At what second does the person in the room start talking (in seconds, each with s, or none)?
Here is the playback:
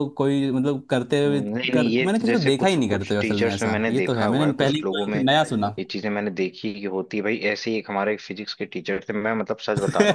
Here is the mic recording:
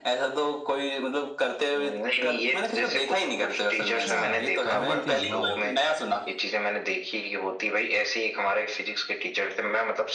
3.8 s